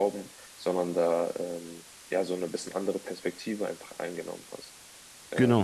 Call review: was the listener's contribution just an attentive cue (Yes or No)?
No